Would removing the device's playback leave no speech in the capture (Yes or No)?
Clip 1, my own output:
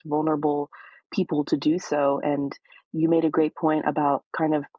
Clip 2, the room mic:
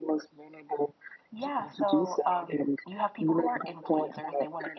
No